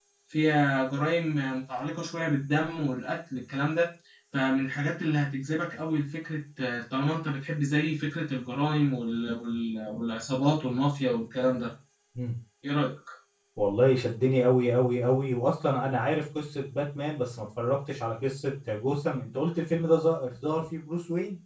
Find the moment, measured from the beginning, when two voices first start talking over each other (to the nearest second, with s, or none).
none